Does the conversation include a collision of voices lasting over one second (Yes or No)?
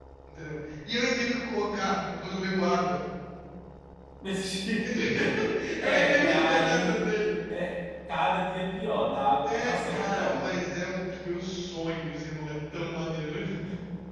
Yes